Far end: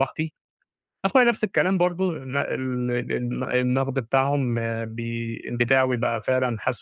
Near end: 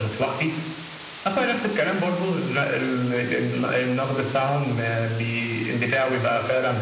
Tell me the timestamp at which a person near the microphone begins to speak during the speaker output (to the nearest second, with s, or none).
none